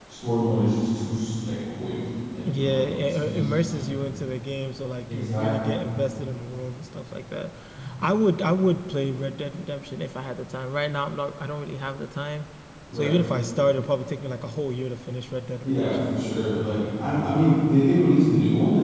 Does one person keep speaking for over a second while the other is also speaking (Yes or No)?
Yes